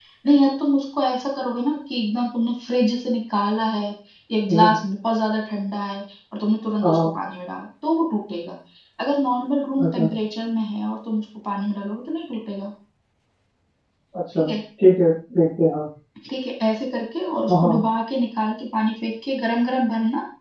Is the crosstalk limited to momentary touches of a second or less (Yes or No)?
Yes